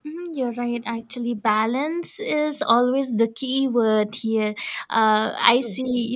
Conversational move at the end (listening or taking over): listening